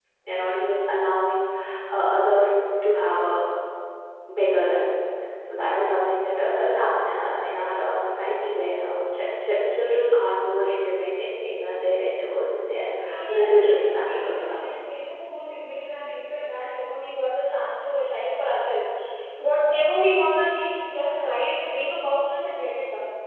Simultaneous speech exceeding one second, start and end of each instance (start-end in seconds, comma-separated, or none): 13.3-14.6